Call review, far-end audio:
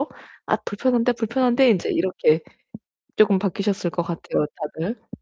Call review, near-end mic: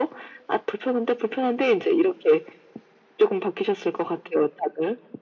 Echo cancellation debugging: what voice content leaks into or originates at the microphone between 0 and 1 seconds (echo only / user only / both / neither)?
echo only